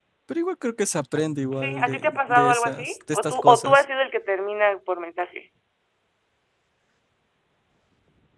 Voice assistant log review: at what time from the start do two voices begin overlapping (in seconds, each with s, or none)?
1.5 s